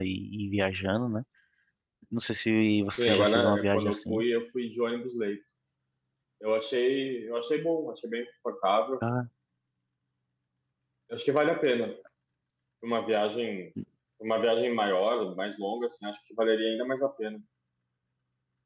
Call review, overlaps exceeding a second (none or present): present